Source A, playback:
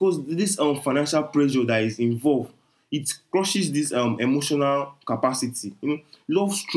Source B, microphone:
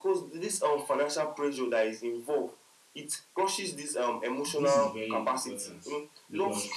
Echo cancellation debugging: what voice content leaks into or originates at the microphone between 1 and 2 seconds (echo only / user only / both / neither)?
echo only